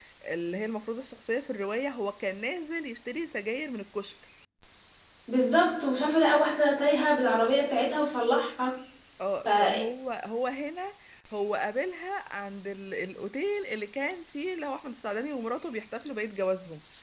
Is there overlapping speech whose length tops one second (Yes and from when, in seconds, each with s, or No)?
No